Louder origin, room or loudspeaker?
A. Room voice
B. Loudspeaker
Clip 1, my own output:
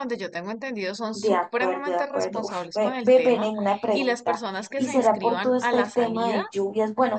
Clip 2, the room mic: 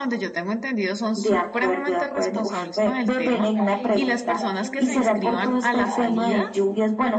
B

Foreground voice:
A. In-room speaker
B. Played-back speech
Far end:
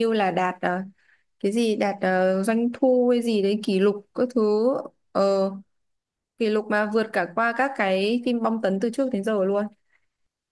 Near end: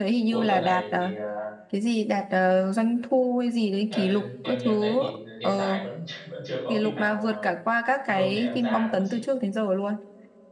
B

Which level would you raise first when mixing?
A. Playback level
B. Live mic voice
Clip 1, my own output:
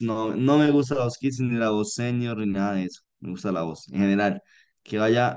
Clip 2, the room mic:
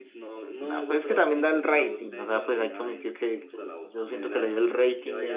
A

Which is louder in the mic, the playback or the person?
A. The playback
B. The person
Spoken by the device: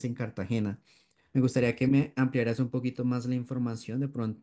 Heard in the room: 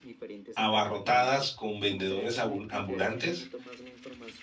B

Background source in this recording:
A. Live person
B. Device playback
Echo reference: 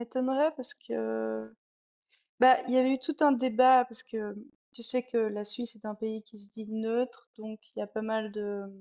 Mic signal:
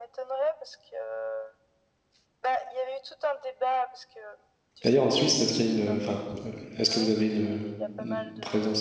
B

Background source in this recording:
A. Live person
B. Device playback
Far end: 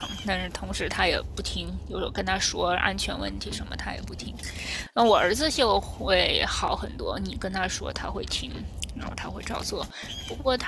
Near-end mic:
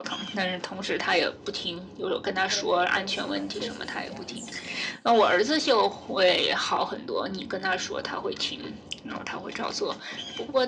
A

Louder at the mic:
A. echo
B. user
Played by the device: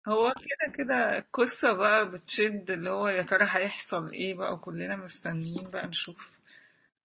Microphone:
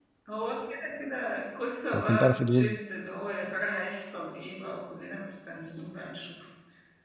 B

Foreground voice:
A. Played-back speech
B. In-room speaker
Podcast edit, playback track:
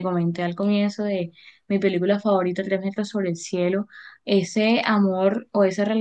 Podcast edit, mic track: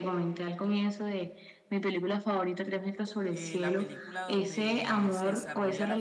A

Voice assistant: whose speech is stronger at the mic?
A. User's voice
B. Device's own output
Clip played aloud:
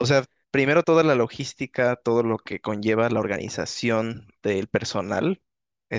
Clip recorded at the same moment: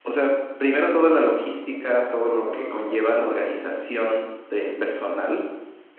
B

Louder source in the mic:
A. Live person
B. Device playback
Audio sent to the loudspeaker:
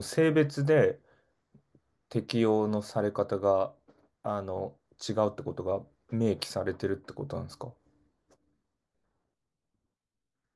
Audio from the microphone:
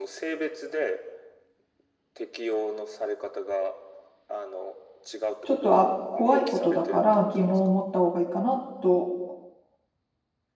A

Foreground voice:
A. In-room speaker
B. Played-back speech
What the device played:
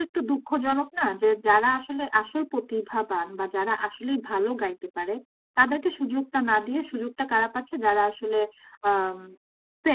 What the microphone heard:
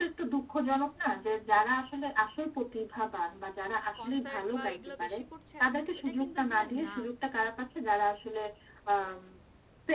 B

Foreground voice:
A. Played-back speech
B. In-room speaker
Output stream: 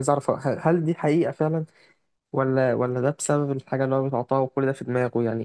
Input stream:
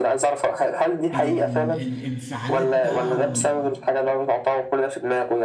A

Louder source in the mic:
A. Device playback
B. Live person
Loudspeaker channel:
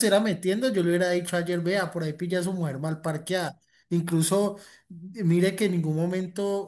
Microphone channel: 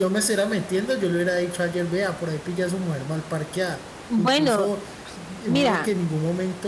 B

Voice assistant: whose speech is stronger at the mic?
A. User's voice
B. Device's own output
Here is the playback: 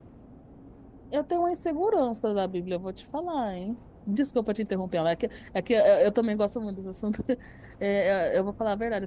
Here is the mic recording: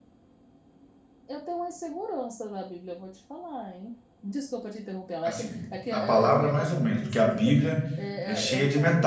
A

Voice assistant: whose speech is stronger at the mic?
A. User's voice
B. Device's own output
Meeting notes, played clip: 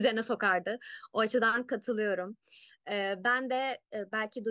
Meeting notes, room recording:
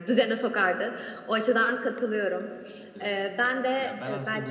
B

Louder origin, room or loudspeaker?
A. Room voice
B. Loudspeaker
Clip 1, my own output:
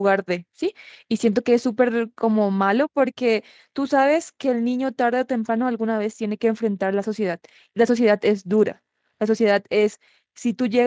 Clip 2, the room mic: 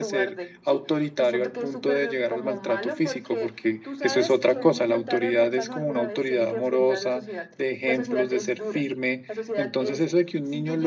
A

